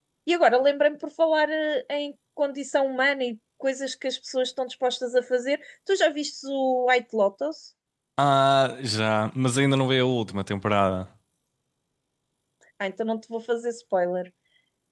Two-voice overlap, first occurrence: none

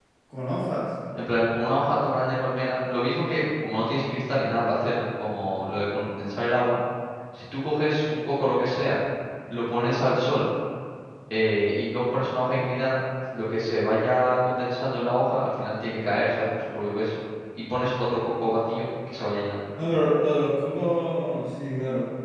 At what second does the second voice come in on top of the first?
none

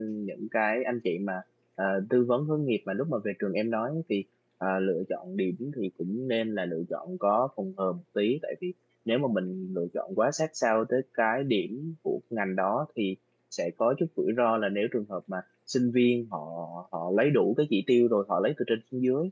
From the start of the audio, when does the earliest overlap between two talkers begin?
none

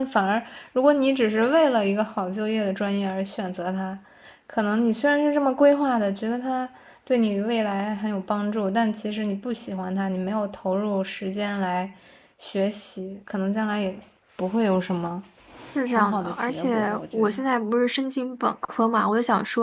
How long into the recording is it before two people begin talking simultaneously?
15.9 s

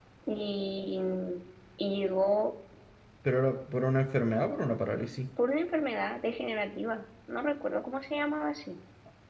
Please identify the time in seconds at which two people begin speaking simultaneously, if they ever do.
none

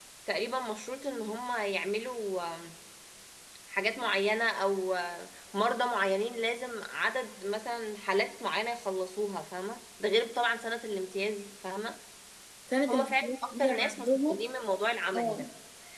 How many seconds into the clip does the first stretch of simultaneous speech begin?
12.9 s

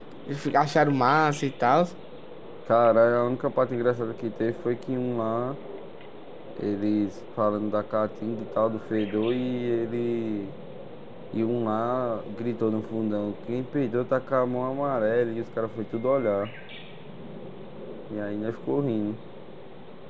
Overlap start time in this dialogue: none

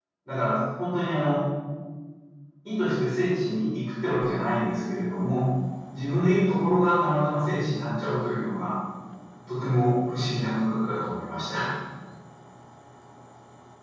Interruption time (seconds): none

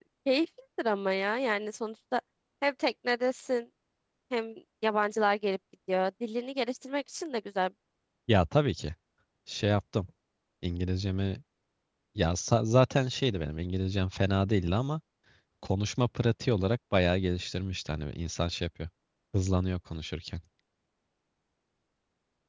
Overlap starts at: none

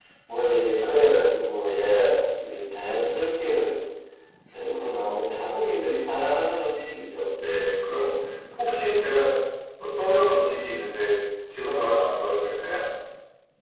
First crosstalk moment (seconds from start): none

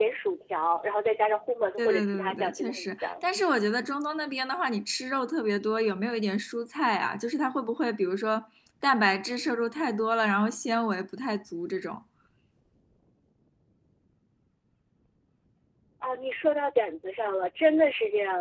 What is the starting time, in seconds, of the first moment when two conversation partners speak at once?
1.8 s

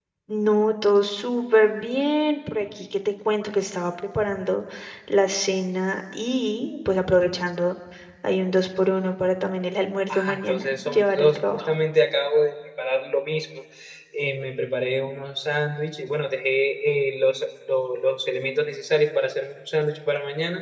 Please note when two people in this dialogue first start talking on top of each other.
10.1 s

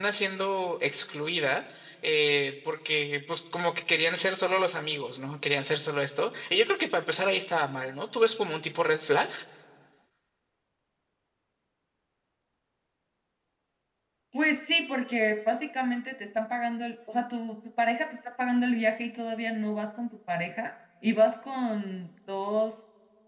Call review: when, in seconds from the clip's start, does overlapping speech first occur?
none

